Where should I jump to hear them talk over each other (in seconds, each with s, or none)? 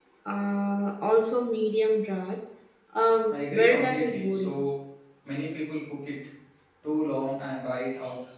3.3 s